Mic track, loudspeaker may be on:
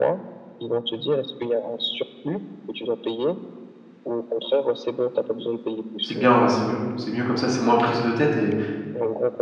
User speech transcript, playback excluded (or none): C'est bien, ouais, c'est mieux. C'est mieux comme ça, c'est moins prise de tête et,